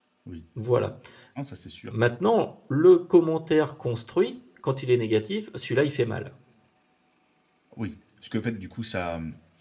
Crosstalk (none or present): none